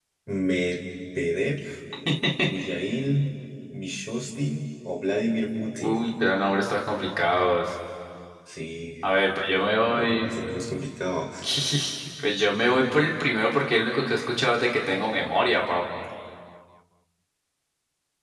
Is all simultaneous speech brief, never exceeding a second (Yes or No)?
Yes